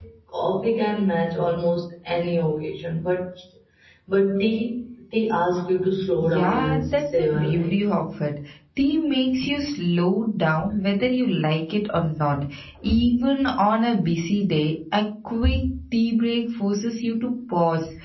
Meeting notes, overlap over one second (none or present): present